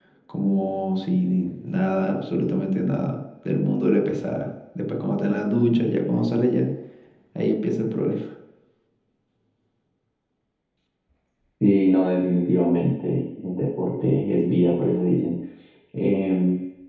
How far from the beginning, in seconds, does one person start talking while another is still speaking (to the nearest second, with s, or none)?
none